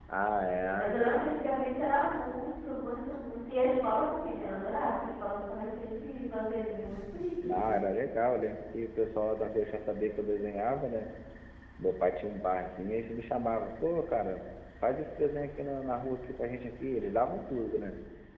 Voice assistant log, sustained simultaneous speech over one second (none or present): none